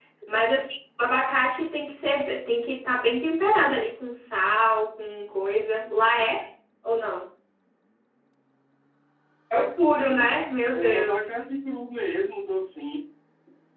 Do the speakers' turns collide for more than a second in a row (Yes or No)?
Yes